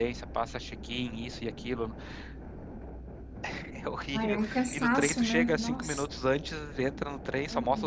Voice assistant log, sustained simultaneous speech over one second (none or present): present